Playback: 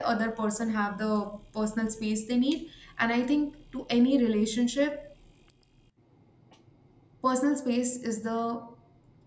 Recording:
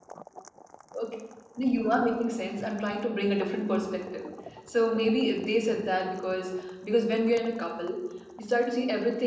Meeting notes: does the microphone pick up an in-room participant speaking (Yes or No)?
Yes